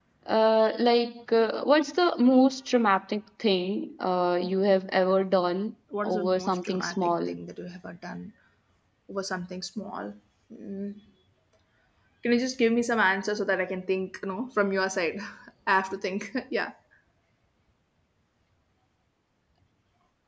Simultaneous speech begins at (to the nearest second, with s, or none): 6 s